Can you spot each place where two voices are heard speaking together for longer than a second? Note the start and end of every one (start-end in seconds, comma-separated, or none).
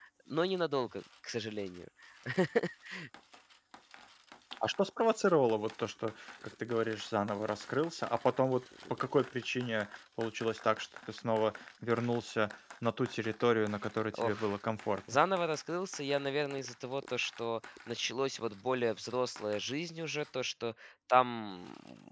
none